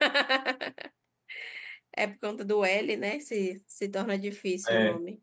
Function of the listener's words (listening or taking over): taking over